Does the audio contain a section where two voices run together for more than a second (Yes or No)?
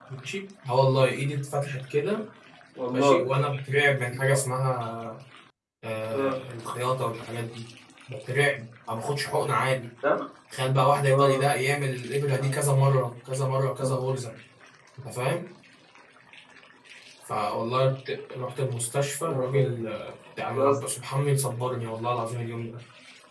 No